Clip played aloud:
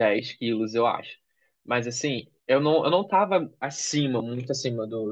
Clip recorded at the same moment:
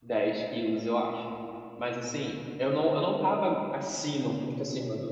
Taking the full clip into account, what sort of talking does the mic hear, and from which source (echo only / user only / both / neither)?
echo only